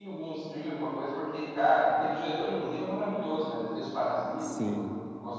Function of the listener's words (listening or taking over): taking over